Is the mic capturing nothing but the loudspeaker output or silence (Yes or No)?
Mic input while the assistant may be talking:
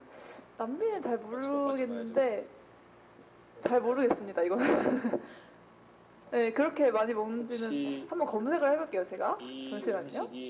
Yes